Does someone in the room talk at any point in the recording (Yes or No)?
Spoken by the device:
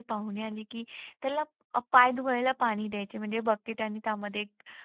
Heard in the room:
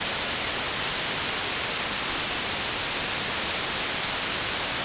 No